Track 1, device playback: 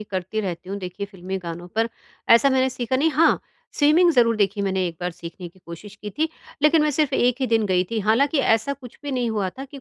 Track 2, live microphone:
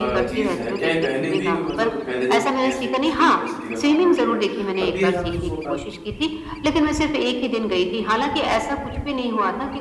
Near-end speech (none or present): present